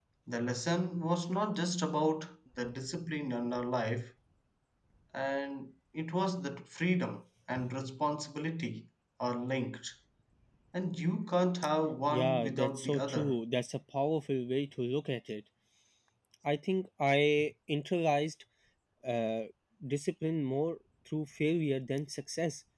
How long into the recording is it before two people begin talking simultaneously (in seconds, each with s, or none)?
12.1 s